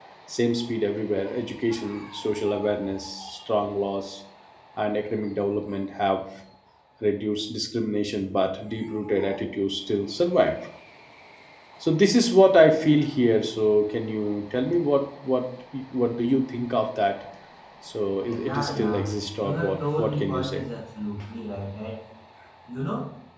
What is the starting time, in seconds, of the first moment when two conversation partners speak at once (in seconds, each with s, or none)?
18.3 s